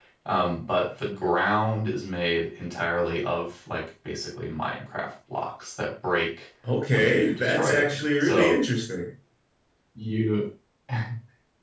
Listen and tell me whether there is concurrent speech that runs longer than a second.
Yes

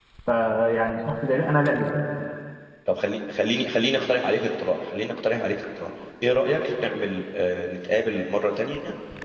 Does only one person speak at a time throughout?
Yes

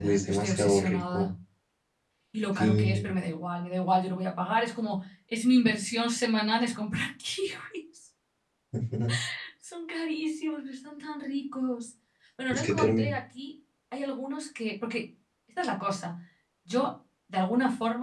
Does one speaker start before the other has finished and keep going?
Yes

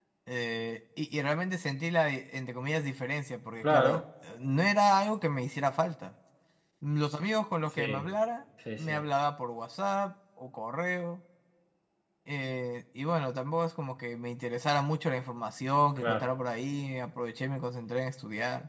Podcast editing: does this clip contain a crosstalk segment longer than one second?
No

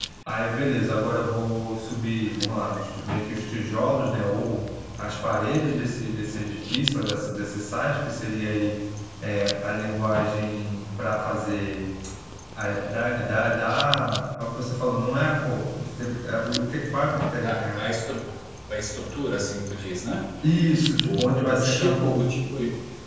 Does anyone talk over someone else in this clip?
Yes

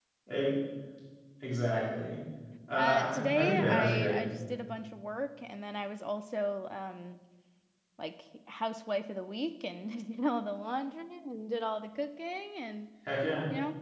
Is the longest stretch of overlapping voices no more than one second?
No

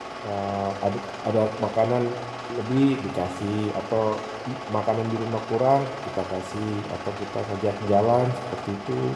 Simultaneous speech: No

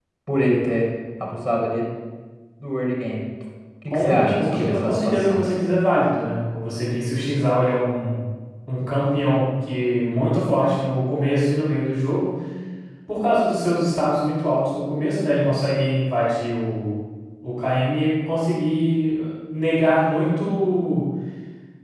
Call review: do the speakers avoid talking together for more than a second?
No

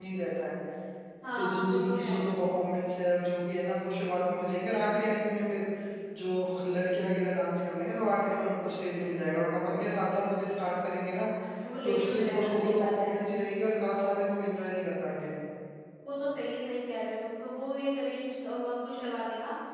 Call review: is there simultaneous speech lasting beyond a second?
Yes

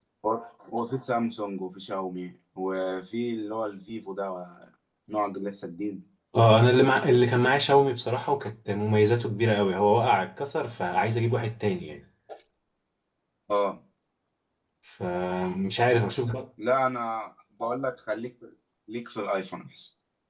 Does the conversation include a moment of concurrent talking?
No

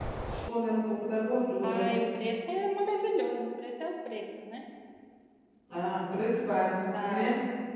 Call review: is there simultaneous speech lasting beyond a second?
No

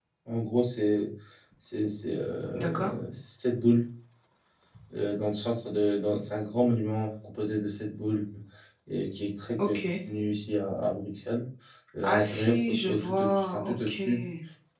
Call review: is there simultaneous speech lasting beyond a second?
Yes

